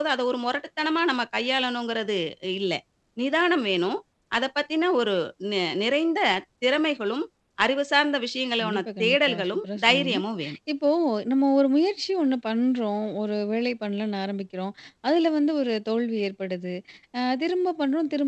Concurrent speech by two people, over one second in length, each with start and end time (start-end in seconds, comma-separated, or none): 8.6-10.2